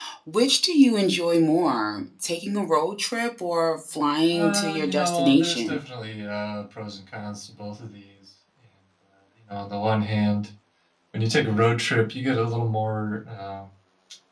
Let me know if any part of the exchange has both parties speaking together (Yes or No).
Yes